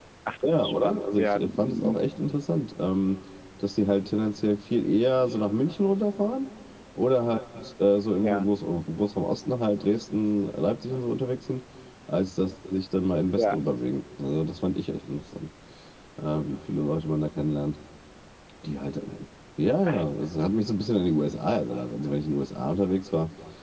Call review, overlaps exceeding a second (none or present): present